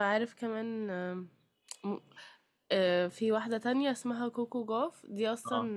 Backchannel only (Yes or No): Yes